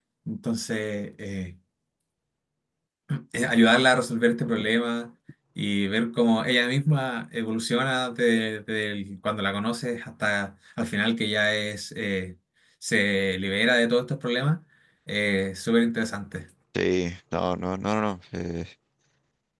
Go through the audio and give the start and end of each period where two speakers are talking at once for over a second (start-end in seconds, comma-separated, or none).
none